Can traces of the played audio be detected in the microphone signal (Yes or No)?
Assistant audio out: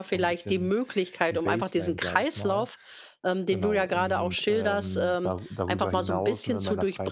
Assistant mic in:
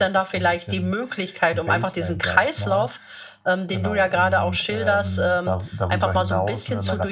Yes